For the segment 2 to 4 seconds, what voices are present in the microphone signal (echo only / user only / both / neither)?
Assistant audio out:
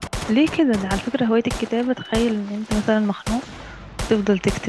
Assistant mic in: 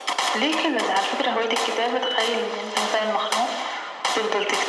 echo only